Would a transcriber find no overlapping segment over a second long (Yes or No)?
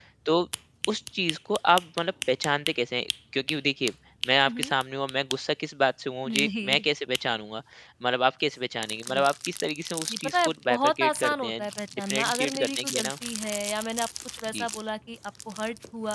No